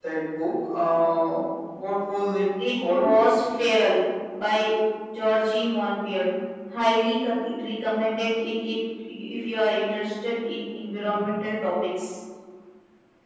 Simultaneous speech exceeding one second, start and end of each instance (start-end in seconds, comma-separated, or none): none